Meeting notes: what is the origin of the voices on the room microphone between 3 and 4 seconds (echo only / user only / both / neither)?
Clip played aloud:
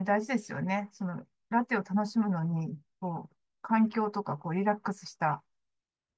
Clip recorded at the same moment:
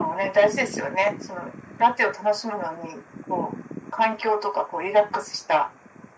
echo only